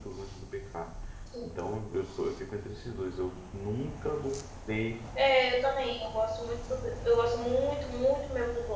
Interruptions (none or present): none